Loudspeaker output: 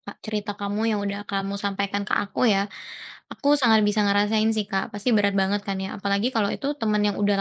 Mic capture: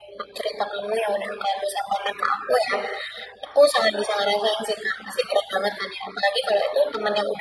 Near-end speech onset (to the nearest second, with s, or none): none